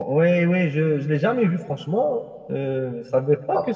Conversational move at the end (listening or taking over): taking over